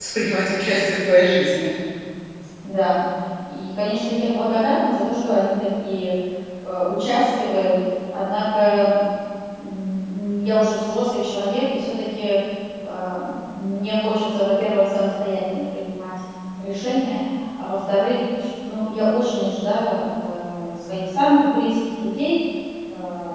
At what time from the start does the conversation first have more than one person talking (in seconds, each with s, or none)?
none